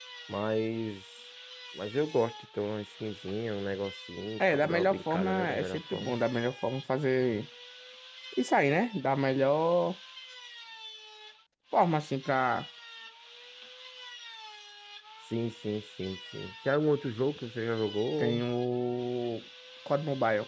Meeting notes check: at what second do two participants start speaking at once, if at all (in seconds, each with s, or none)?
4.5 s